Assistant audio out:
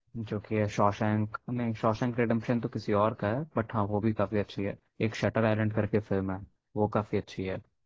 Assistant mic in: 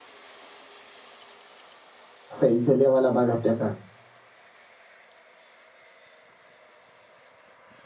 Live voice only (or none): सही जलियांवाला बाग हत्याकांड